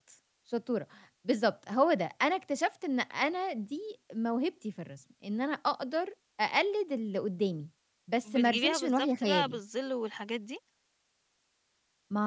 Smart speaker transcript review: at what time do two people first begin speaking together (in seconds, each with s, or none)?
8.2 s